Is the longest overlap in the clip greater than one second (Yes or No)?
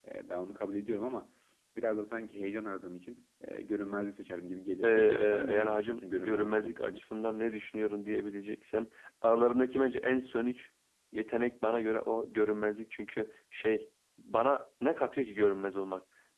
Yes